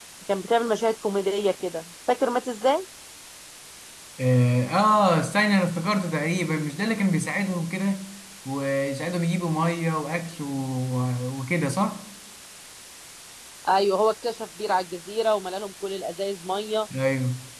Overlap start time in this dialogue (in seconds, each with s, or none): none